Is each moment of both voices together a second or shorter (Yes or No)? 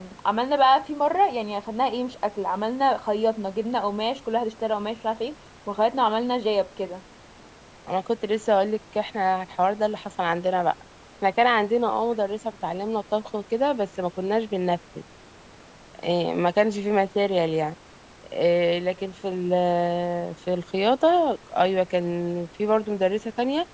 Yes